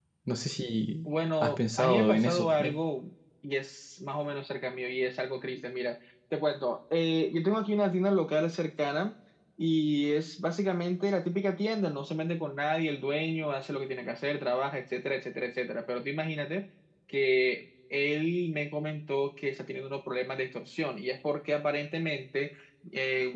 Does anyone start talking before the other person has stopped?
Yes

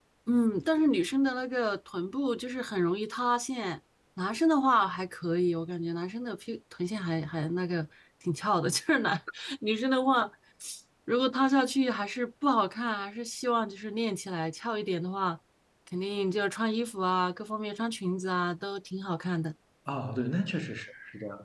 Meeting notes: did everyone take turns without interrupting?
Yes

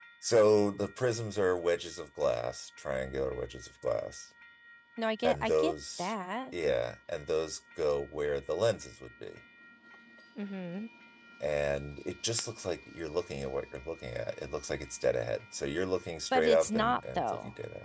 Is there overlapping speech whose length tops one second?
Yes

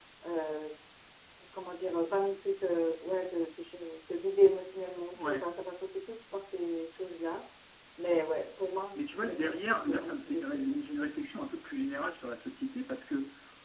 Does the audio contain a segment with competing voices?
Yes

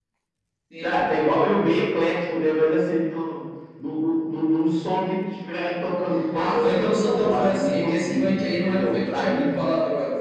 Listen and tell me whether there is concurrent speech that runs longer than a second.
Yes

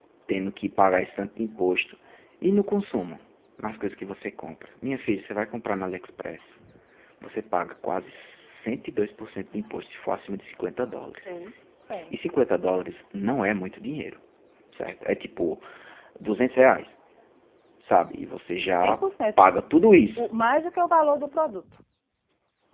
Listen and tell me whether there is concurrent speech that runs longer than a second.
No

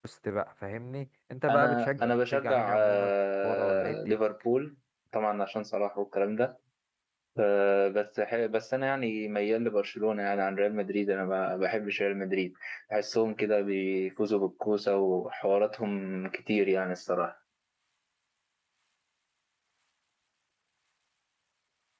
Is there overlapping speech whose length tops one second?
Yes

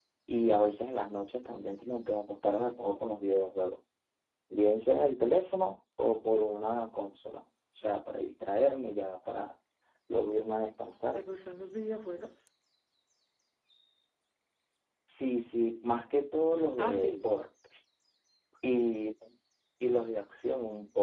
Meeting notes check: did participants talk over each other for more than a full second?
No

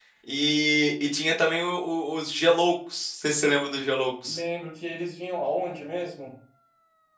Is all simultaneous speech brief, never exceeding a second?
Yes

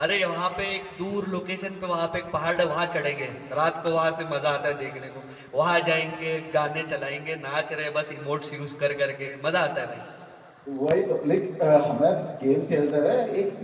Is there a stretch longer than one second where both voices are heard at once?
No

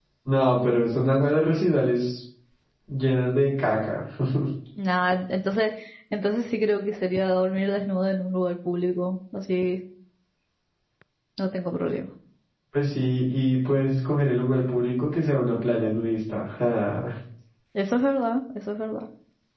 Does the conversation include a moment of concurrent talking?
No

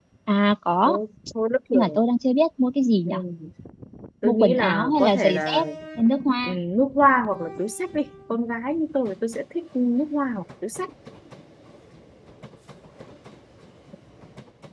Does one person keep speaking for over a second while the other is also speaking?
Yes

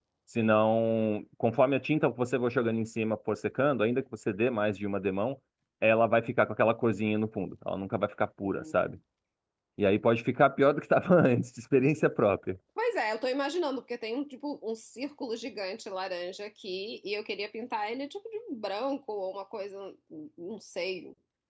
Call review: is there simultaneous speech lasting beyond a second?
No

